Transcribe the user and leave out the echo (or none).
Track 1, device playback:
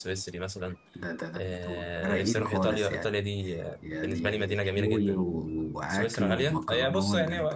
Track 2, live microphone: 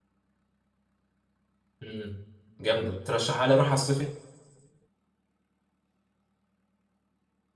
مم. جامده ترشحها لي اروح على الصيف